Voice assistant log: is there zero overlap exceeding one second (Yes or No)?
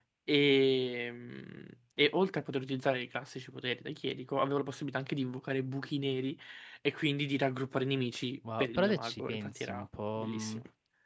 No